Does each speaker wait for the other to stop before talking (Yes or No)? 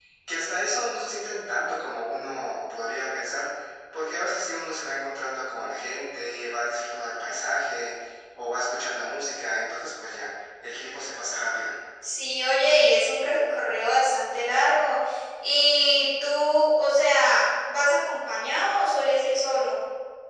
Yes